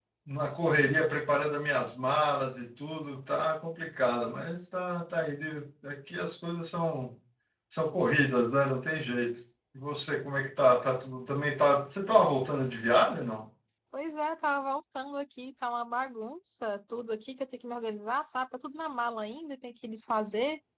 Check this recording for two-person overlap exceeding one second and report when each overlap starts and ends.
none

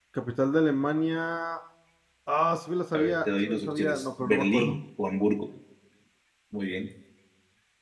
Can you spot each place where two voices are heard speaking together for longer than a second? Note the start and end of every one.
2.9-4.8

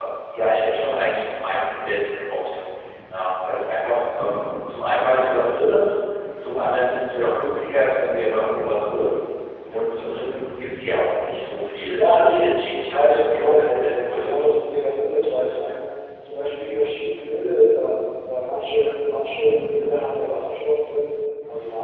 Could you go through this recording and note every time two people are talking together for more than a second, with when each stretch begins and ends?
11.9-14.3

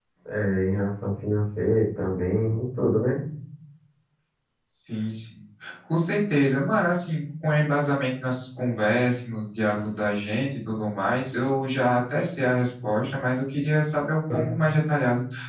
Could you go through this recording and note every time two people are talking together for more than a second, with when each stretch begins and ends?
none

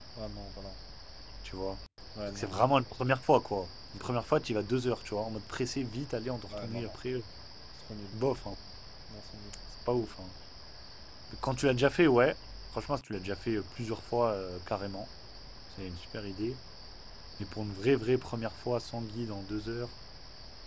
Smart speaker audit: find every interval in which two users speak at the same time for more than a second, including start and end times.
none

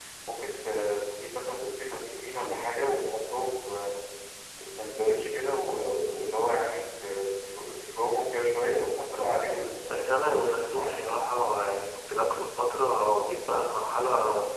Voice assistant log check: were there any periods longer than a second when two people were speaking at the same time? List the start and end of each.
9.9-11.1

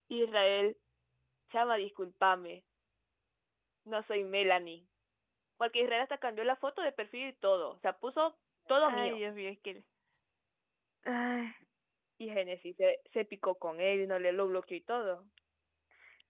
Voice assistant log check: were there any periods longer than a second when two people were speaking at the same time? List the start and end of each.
none

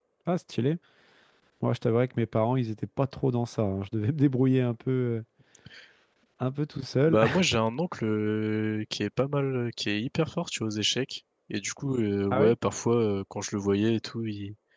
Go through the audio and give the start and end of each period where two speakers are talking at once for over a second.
none

